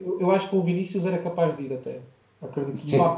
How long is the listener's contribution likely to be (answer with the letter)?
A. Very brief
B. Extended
A